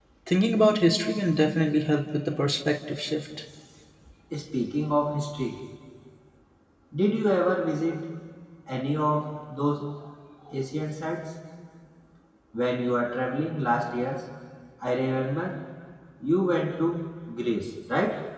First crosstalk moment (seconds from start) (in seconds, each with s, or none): none